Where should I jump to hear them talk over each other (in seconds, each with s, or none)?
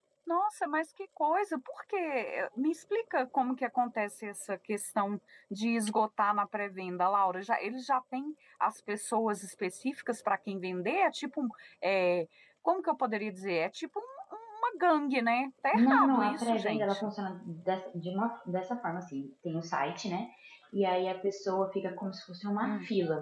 15.7 s